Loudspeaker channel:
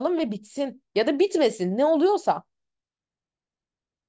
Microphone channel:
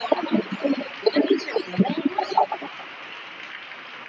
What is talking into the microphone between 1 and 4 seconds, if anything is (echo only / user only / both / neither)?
echo only